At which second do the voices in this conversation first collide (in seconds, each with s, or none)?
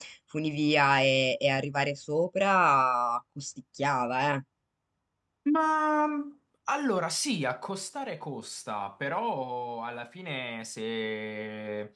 none